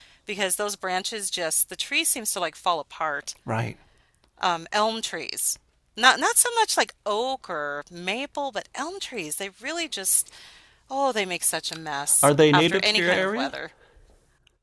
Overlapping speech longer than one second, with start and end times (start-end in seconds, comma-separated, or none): 12.2-13.5